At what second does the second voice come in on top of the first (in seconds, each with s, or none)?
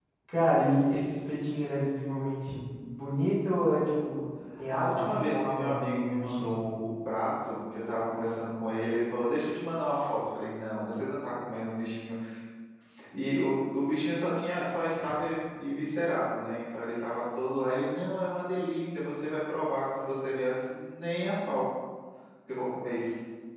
4.7 s